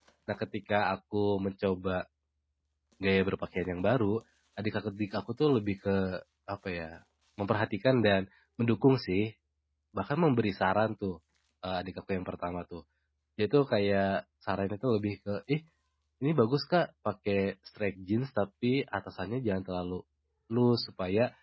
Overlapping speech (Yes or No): No